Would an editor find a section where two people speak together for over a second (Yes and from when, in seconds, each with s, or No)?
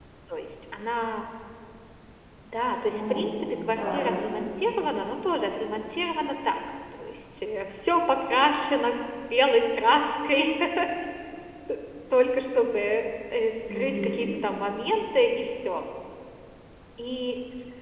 Yes, from 2.9 s